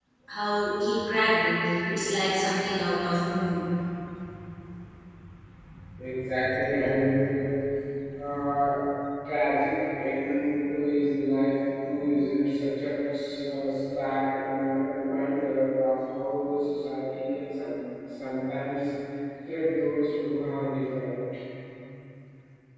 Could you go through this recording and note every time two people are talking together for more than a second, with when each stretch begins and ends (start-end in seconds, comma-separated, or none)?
none